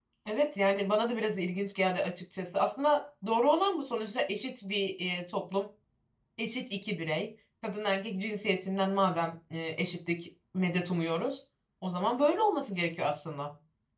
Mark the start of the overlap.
none

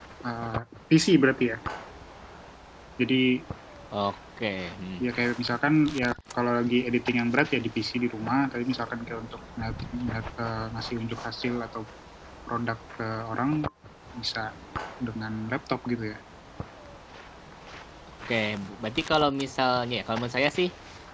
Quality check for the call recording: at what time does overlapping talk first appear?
none

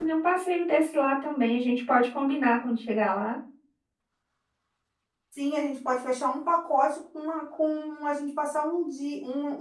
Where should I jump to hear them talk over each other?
none

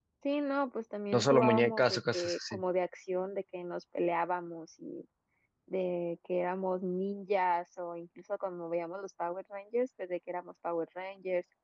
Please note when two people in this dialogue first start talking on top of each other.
1.1 s

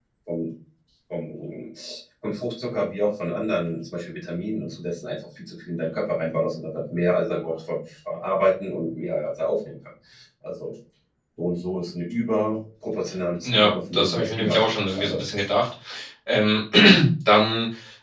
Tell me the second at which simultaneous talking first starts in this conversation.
13.4 s

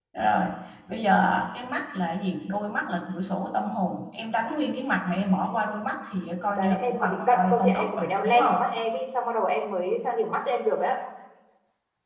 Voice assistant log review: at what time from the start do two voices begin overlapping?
6.5 s

